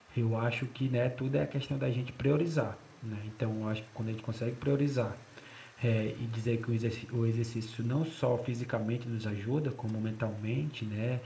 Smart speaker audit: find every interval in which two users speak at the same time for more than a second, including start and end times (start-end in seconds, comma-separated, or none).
none